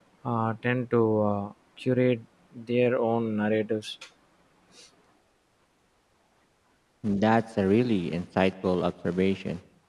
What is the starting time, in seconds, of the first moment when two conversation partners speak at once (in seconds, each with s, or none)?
none